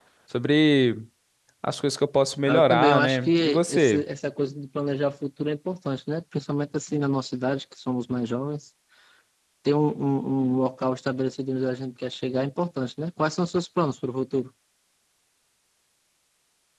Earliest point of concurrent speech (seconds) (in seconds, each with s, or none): 2.5 s